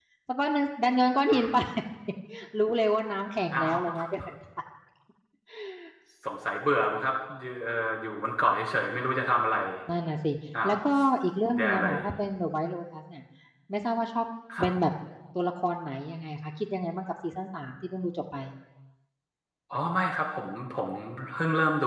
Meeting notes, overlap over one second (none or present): none